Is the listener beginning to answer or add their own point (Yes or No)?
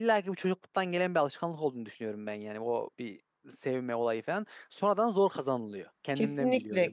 Yes